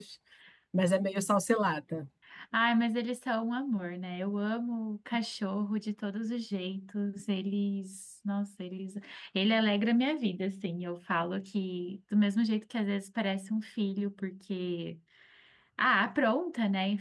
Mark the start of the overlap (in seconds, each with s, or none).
none